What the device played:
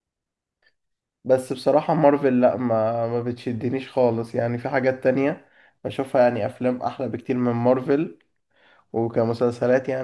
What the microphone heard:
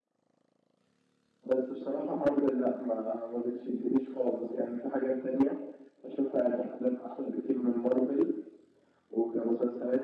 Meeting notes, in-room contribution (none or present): none